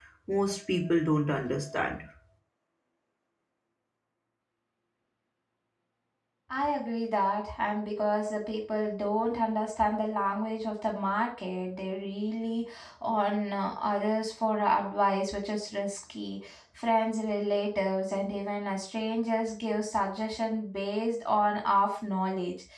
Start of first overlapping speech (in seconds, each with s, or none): none